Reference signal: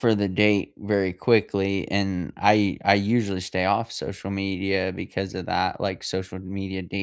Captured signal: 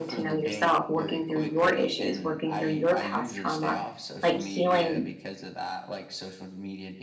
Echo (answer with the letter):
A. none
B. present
B